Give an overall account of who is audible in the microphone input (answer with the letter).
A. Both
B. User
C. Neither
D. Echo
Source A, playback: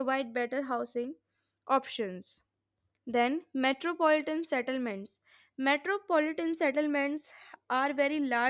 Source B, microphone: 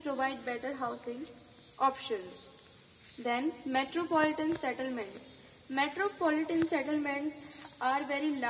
D